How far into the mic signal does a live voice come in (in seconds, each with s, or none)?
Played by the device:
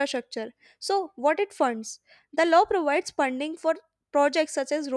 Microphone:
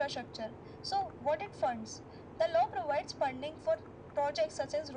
none